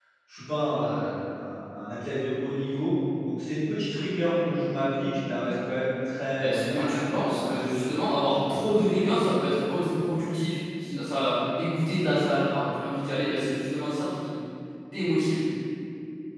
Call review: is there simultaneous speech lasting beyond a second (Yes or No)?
Yes